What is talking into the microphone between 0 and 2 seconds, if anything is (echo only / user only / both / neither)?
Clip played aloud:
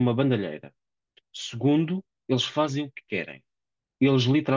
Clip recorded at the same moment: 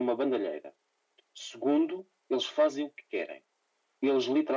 echo only